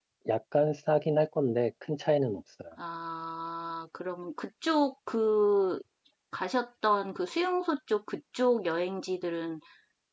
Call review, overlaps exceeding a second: none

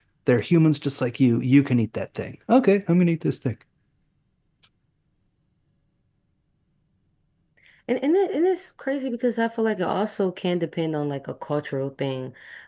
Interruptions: none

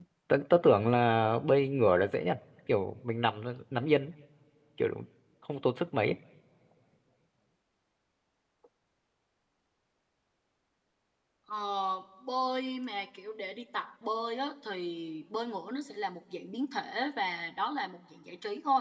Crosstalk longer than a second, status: none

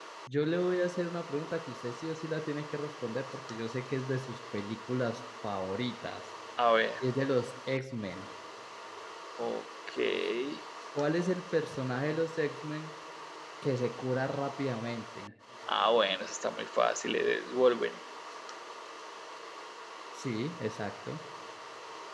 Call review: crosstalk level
none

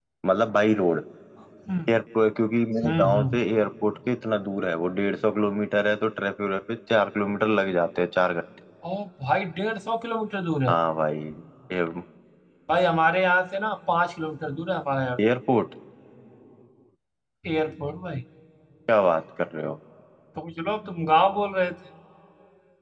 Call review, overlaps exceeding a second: none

